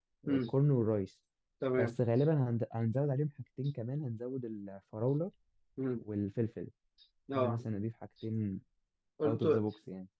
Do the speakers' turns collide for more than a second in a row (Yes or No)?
No